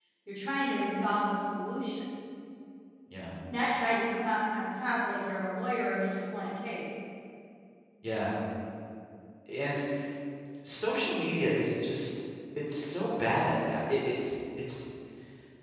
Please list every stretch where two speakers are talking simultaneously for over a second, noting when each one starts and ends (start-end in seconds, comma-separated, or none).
none